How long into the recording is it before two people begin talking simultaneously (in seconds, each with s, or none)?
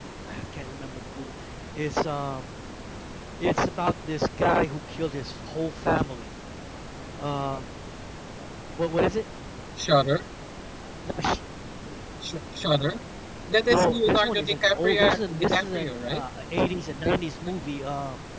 13.7 s